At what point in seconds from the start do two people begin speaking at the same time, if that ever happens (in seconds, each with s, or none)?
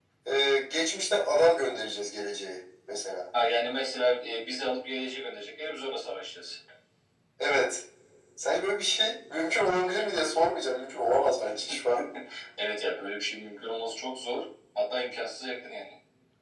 none